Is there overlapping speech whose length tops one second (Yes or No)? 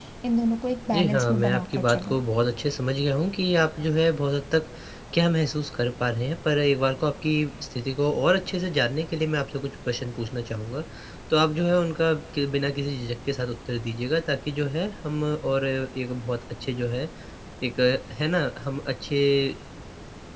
Yes